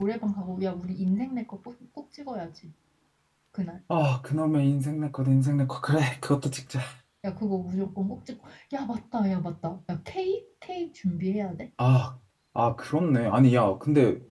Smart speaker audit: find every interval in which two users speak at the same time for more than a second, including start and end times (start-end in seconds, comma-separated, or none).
none